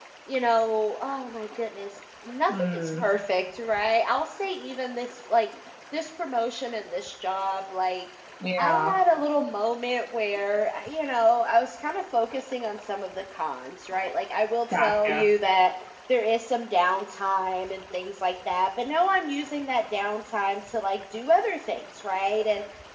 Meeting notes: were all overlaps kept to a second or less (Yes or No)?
Yes